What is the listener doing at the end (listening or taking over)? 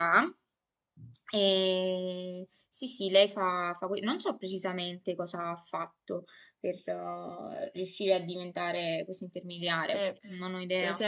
taking over